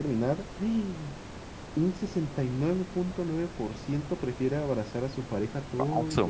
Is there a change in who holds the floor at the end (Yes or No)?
Yes